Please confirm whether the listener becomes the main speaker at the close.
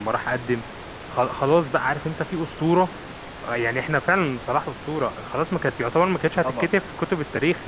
No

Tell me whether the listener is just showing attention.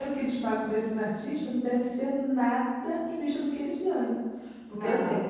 Yes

